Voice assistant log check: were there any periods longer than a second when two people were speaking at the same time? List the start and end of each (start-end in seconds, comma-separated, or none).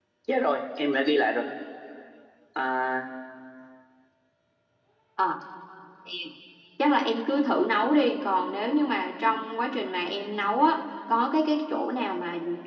none